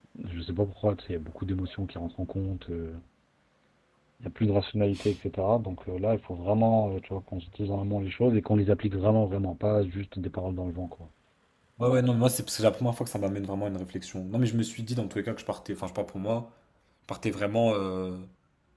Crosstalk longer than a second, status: none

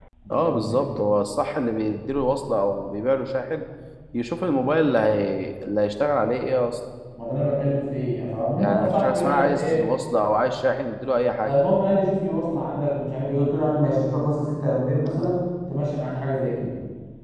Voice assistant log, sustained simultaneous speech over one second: present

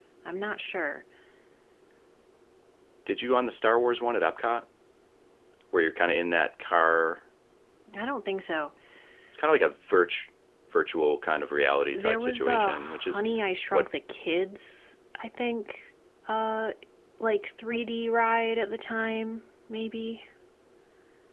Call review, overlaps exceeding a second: present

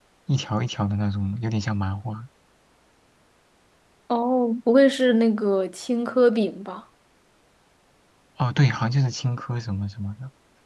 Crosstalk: none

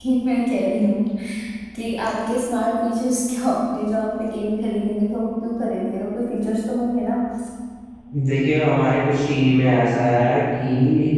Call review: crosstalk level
none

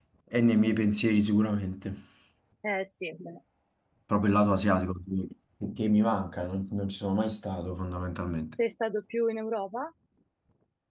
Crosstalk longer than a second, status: none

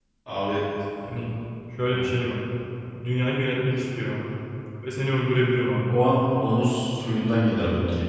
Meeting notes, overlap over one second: none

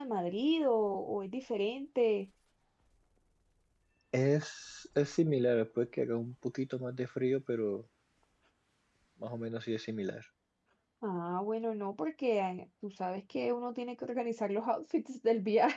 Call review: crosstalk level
none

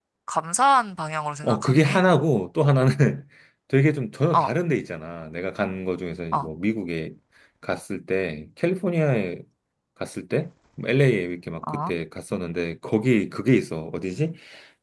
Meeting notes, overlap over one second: none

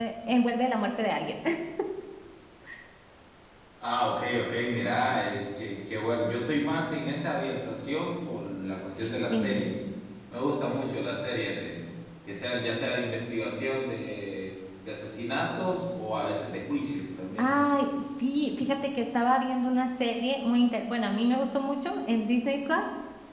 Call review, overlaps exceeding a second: none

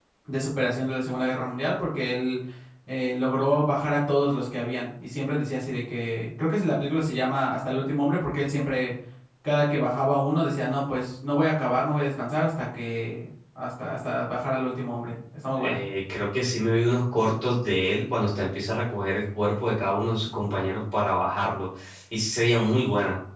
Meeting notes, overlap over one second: none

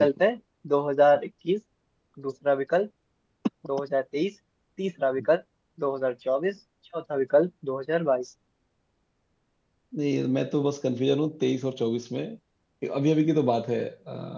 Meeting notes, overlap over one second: none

